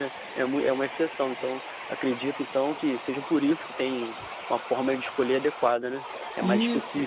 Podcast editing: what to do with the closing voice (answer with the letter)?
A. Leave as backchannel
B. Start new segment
B